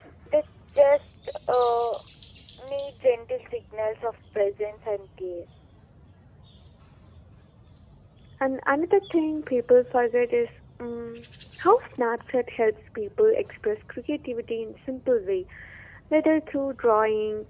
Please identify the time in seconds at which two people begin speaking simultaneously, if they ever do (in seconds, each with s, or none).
none